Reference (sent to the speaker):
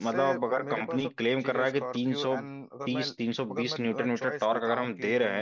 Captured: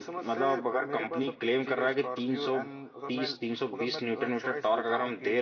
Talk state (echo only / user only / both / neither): echo only